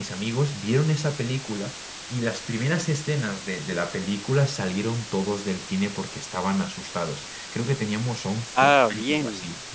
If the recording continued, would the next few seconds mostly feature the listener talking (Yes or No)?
No